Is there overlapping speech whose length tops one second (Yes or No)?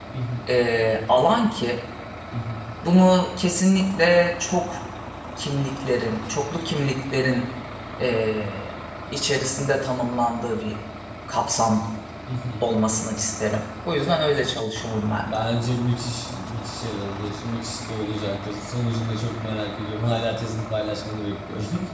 No